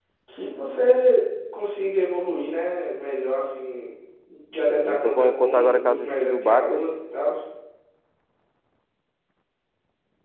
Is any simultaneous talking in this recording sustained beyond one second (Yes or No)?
Yes